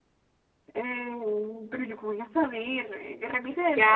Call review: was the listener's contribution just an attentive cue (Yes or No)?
No